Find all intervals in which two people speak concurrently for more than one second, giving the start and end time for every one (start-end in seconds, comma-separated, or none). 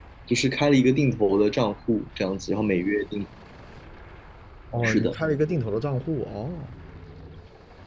none